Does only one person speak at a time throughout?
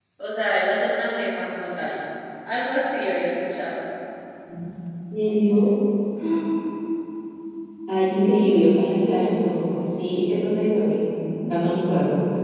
Yes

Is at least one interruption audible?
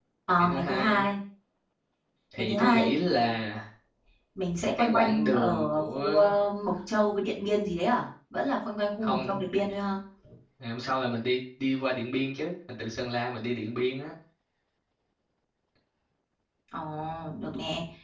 Yes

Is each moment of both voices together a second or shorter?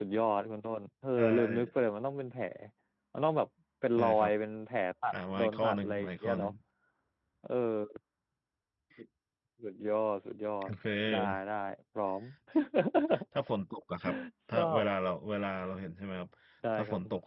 No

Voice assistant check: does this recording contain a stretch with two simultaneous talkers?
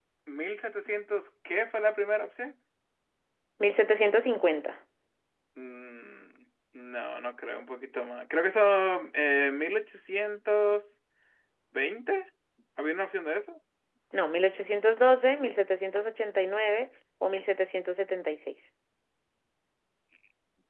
No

